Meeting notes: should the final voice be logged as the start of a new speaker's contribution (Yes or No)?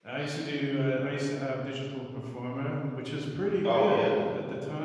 No